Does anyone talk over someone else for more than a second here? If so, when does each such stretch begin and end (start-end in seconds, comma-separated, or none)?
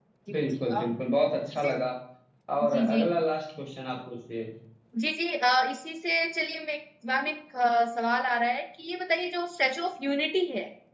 none